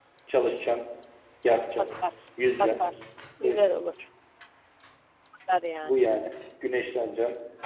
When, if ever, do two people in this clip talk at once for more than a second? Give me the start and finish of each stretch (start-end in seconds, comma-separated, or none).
none